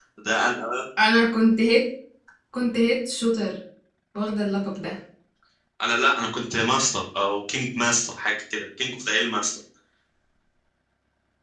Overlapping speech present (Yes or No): No